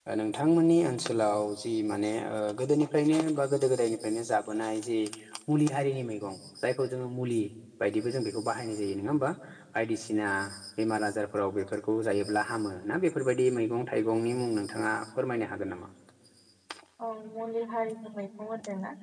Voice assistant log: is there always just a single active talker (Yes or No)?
Yes